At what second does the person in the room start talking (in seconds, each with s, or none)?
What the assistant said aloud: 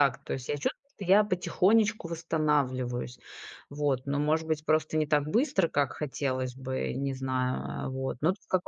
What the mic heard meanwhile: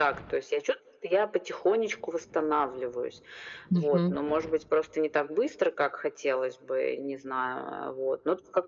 3.7 s